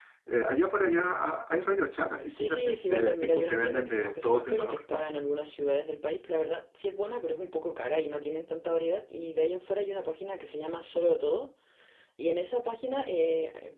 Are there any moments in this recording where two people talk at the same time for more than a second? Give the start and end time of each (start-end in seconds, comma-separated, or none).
2.2-5.0